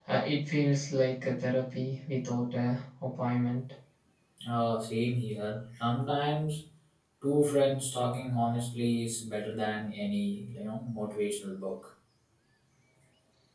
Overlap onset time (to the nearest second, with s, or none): none